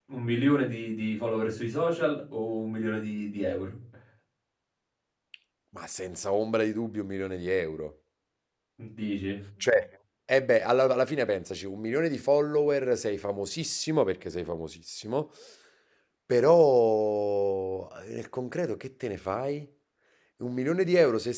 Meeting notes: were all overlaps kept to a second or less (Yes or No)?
Yes